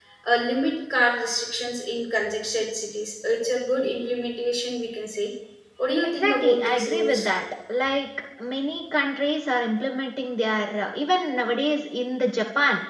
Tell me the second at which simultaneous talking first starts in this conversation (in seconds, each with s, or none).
6.0 s